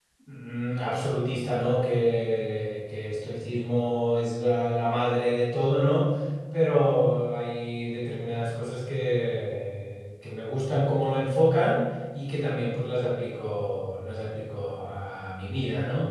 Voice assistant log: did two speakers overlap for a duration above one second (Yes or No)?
No